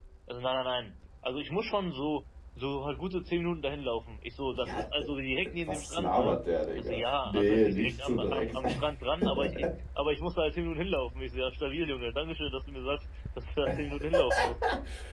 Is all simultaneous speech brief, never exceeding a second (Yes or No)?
No